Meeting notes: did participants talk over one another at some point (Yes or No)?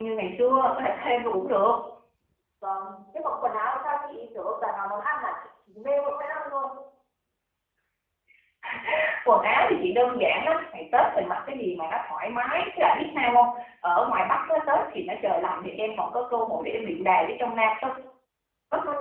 No